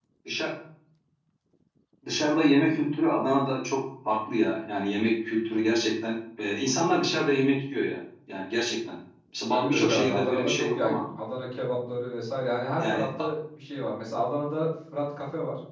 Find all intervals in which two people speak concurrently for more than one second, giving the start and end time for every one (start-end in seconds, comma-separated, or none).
9.5-11.0